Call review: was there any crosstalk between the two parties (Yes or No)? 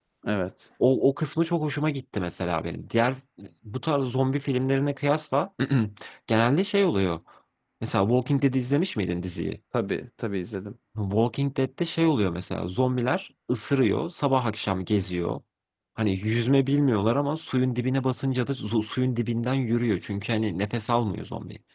No